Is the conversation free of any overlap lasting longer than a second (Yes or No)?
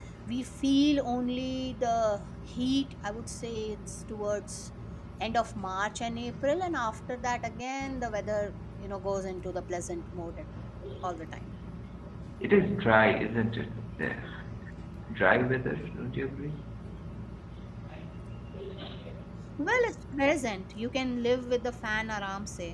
Yes